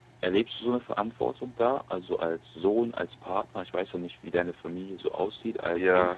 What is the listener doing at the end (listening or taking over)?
taking over